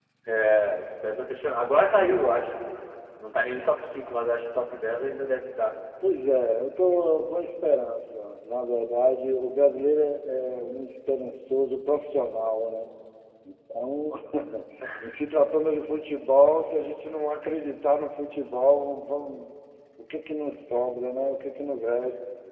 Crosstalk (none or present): none